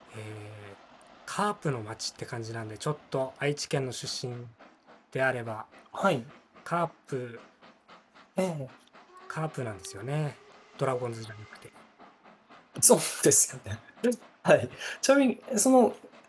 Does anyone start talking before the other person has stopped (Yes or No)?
No